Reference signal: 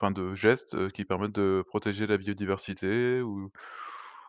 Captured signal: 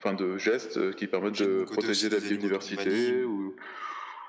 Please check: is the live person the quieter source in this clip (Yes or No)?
Yes